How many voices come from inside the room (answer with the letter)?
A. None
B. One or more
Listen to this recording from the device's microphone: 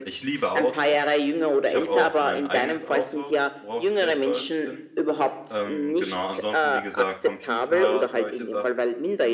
B